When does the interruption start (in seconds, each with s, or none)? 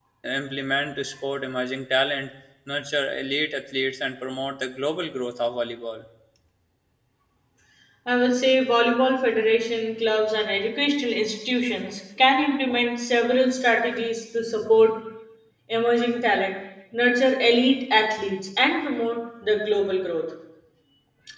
none